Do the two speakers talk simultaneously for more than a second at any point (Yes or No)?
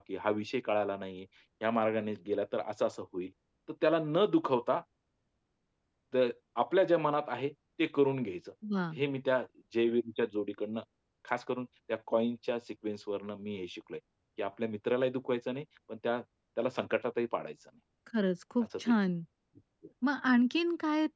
No